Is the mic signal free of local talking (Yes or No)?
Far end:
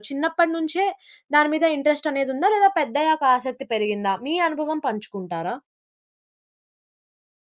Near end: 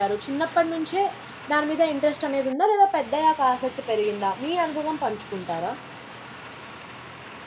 Yes